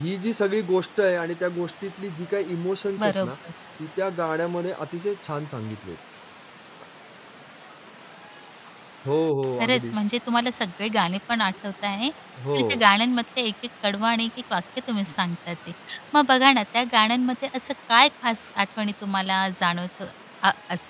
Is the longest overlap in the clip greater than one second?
No

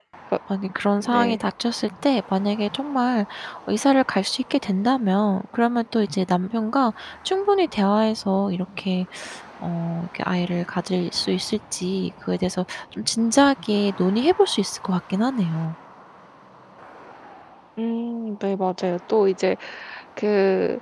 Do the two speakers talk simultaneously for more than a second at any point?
No

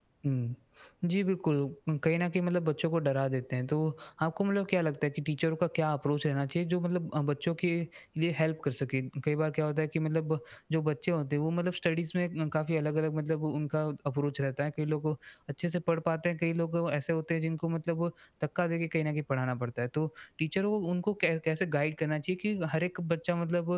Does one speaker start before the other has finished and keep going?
No

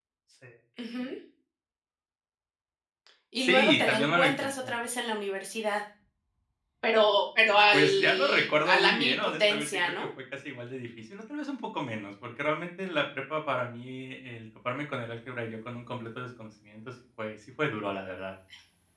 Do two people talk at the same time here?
Yes, from 3.4 s

